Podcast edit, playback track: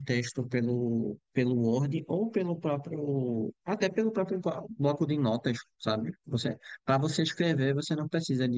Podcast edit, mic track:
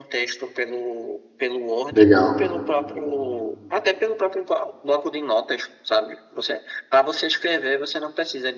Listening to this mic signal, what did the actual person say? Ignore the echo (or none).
Legal.